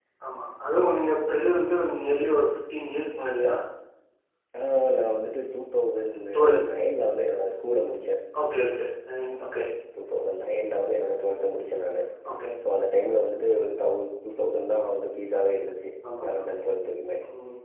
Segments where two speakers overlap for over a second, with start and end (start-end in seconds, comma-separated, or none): none